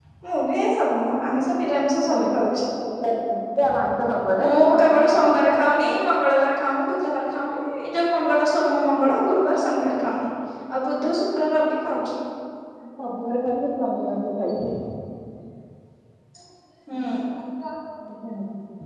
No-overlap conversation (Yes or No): No